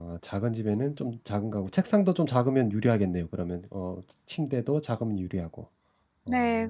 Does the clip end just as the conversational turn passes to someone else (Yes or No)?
Yes